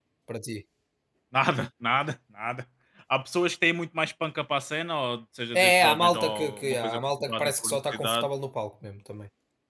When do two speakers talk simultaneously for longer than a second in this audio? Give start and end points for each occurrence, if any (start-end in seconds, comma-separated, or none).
5.5-8.3